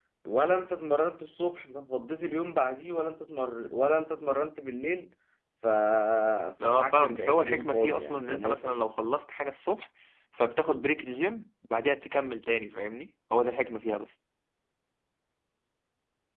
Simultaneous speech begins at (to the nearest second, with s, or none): 7 s